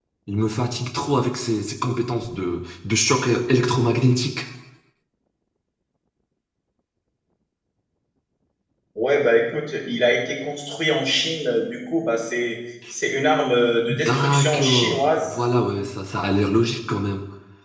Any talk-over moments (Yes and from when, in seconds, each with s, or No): Yes, from 13.9 s